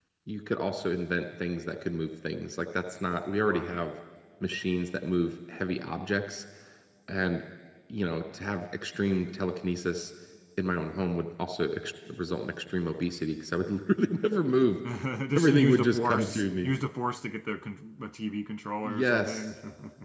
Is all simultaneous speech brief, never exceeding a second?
No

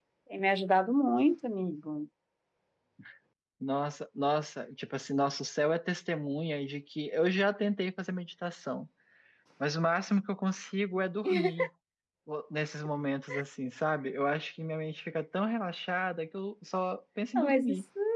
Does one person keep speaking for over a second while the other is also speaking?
No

